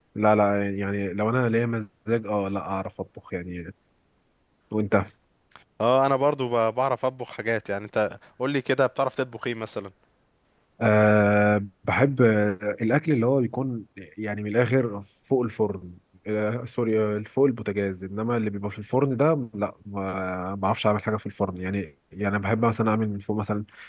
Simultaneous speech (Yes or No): No